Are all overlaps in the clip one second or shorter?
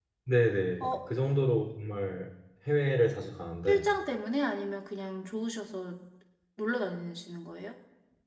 Yes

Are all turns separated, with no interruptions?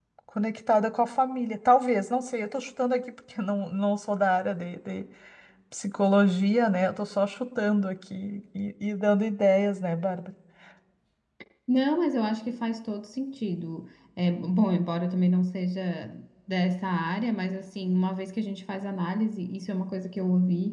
Yes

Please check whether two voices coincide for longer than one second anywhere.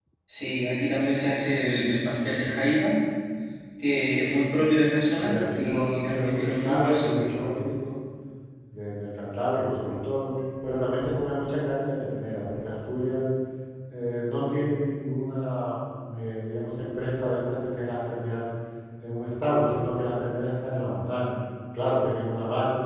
Yes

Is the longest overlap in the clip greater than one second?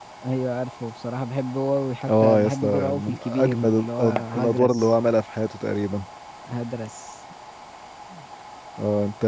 Yes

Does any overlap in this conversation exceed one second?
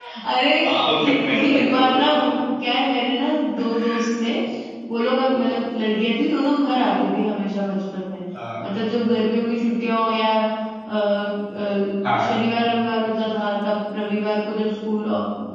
Yes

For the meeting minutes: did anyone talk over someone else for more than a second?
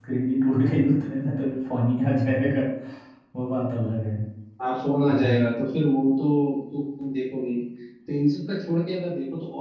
No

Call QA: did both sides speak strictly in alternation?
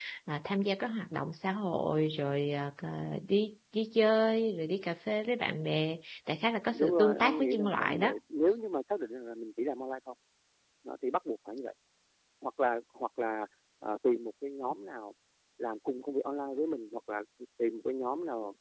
No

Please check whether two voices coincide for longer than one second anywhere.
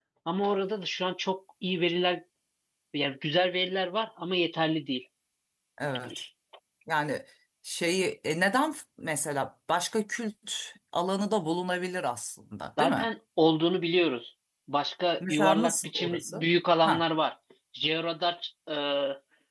Yes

